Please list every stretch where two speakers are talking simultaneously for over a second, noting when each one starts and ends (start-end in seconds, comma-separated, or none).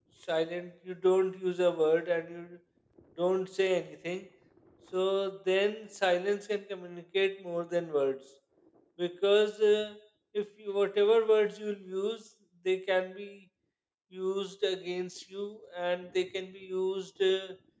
none